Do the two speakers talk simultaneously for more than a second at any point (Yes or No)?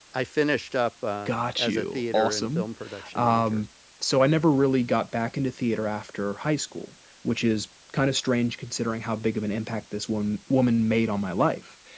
Yes